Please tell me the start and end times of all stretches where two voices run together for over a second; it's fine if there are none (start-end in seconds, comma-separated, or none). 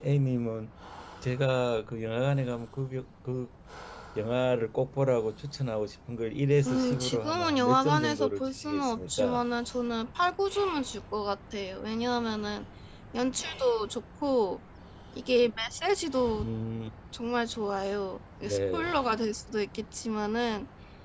6.7-9.4